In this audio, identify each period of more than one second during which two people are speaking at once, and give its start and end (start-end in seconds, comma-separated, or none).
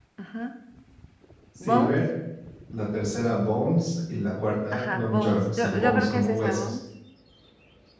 4.7-6.6